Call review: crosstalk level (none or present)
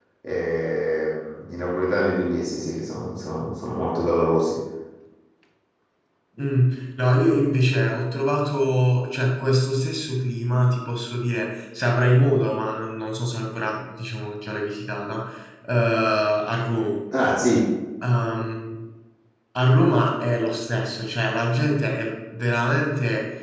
none